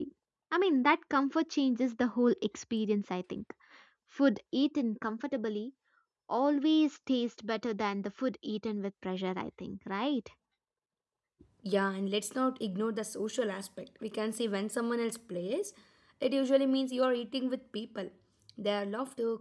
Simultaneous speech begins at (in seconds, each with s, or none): none